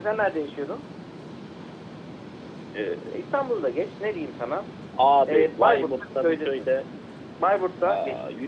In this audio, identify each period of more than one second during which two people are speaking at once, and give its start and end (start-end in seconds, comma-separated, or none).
5.3-6.7